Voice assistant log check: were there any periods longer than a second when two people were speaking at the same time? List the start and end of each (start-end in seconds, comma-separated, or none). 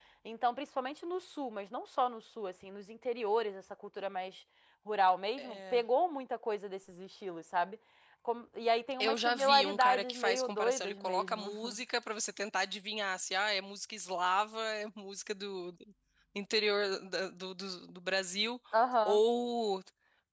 9.0-11.5